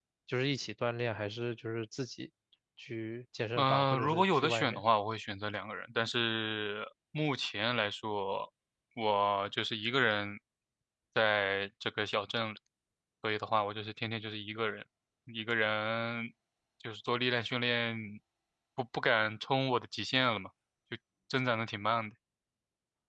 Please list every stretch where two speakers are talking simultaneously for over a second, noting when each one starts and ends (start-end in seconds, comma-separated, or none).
3.6-4.8